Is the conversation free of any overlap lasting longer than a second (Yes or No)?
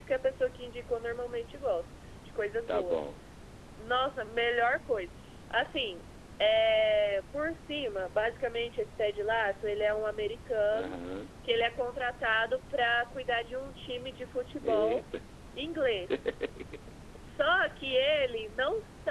Yes